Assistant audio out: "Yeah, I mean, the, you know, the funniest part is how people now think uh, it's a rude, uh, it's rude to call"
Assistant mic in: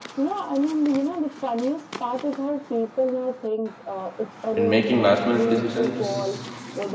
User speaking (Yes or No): Yes